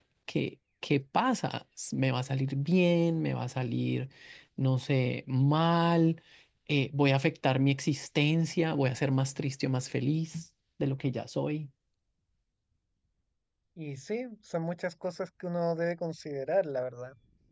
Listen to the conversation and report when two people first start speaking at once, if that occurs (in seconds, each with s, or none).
none